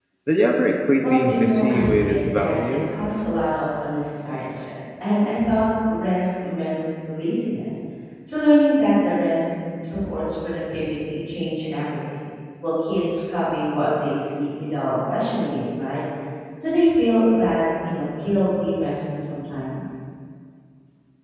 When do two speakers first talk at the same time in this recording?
1 s

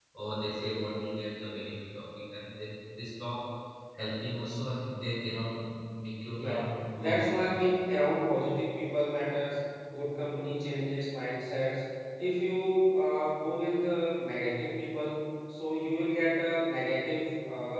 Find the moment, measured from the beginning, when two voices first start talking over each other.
6 s

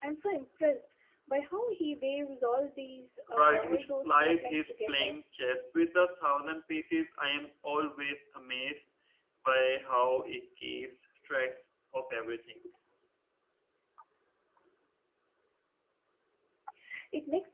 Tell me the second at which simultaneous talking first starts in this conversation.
3 s

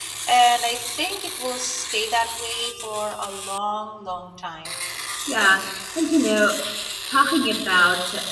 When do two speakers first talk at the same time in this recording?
none

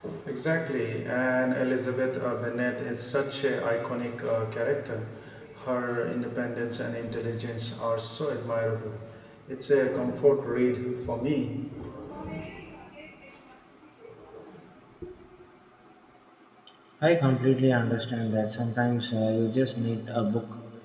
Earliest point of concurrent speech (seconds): none

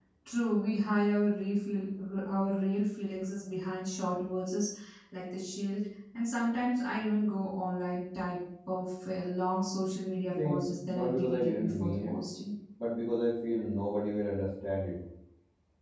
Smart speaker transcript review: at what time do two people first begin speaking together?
10 s

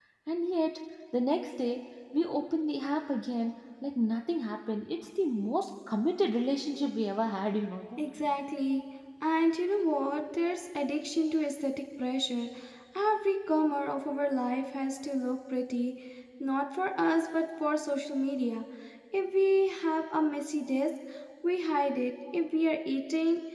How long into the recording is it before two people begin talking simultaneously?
none

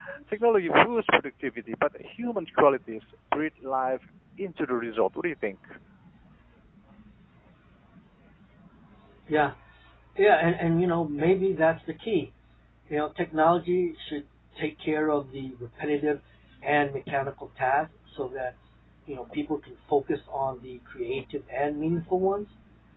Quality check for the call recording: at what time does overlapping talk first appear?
none

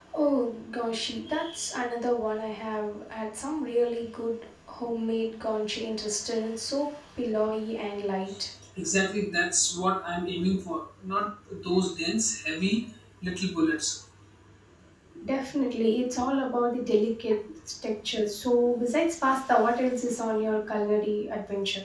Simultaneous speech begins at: none

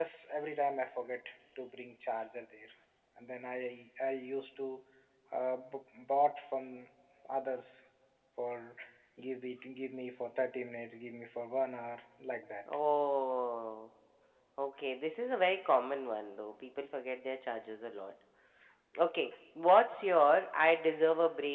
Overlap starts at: none

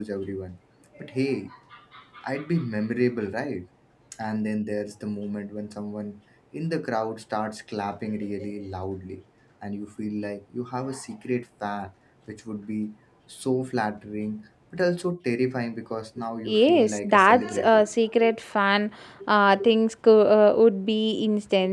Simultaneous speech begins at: 16 s

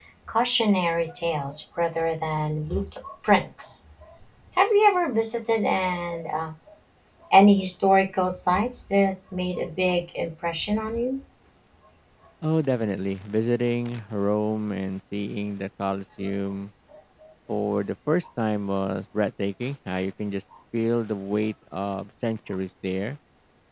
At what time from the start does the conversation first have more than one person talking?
none

